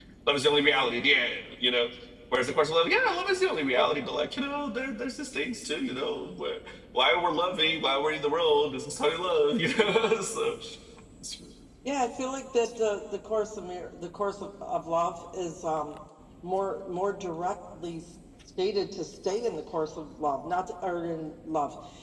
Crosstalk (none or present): none